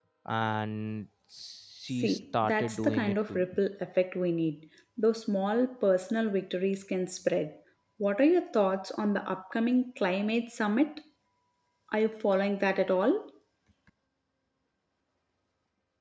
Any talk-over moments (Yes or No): Yes